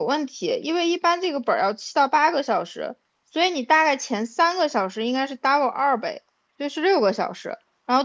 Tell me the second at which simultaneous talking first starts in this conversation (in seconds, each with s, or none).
none